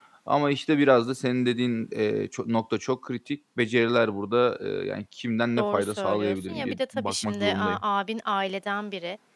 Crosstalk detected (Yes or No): Yes